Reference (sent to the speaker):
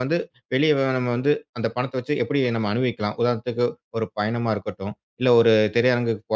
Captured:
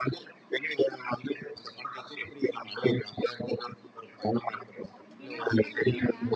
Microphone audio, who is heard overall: both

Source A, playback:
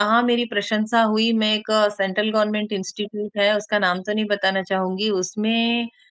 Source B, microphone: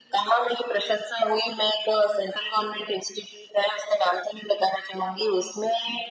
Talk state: echo only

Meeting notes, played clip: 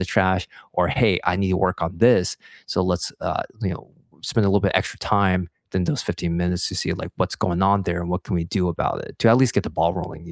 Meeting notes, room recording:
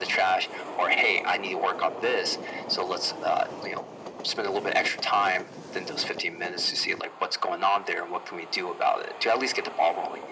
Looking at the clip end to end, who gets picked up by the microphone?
echo only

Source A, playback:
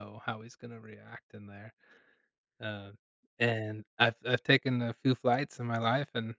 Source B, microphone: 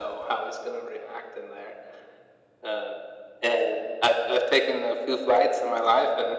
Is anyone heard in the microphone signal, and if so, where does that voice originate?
echo only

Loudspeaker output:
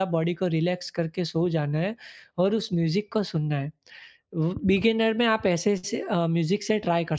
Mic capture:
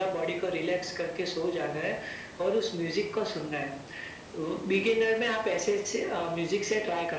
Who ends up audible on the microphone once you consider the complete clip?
echo only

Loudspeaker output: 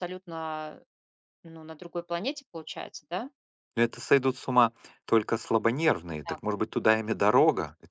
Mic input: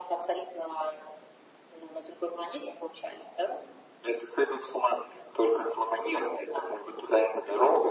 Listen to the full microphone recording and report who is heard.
echo only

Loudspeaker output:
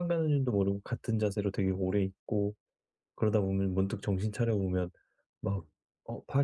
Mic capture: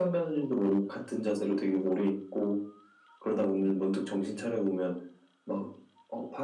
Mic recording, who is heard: both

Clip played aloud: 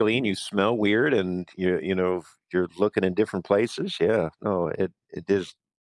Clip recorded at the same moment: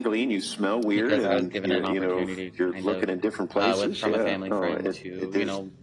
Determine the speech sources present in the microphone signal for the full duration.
both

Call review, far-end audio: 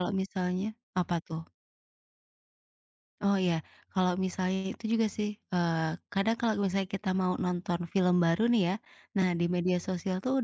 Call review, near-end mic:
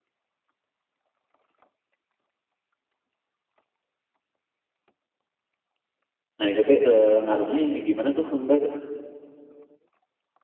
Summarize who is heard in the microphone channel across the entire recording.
user only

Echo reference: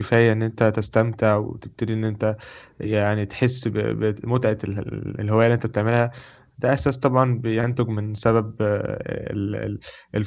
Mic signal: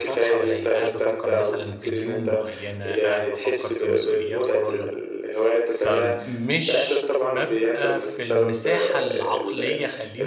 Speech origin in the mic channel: both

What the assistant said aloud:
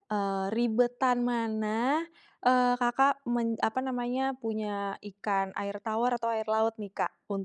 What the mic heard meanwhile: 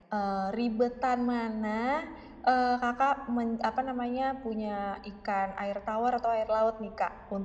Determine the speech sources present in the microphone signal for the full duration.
echo only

